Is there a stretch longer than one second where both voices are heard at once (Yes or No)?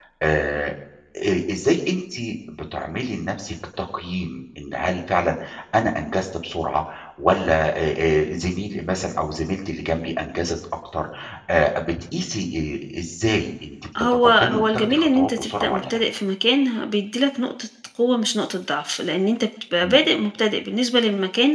Yes